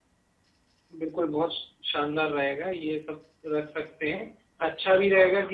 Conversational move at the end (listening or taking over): listening